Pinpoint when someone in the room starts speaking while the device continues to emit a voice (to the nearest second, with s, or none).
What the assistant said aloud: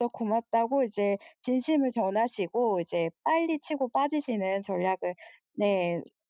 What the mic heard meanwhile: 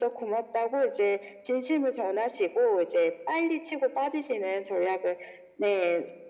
none